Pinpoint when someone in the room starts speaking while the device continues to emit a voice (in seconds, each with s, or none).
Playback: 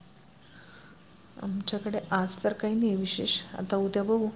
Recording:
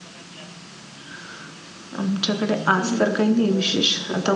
2.7 s